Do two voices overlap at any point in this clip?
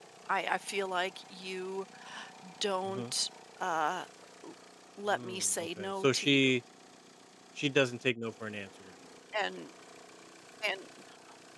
Yes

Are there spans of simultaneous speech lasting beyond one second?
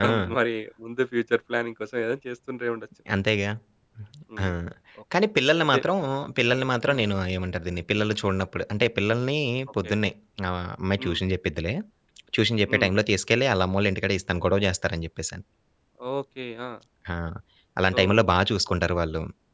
No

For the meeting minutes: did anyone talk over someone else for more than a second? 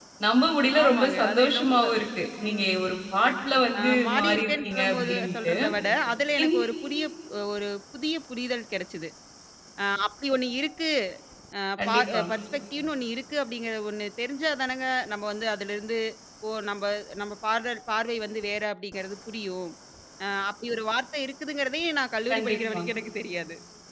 Yes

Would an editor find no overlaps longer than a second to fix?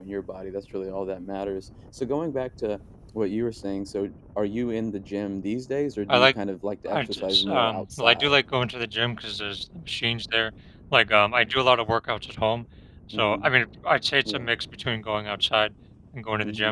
No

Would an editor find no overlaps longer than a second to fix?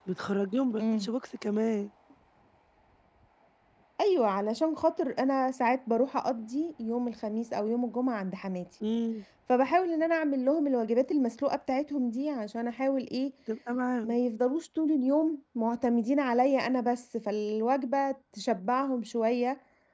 Yes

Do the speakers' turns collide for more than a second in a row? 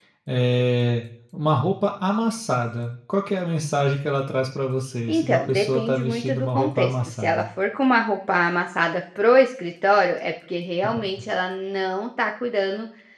Yes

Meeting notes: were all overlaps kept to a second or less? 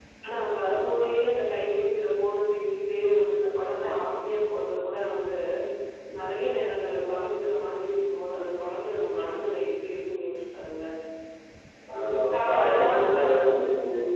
No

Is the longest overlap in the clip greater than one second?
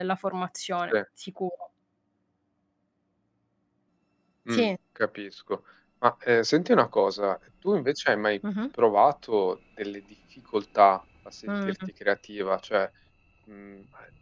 No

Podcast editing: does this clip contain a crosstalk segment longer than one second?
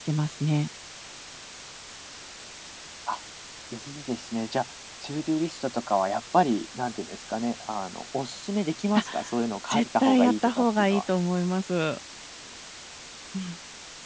Yes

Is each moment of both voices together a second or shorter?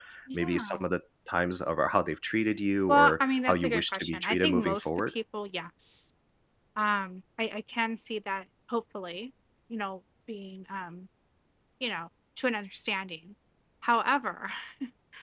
No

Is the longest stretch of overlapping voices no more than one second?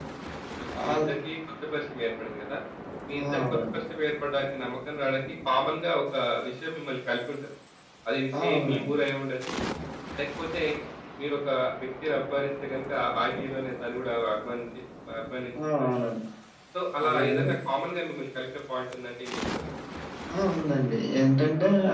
Yes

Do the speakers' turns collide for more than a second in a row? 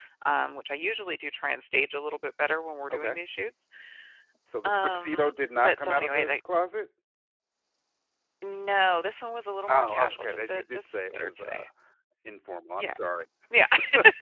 Yes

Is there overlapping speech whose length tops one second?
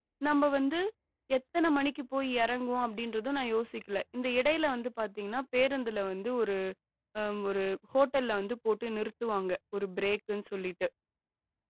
No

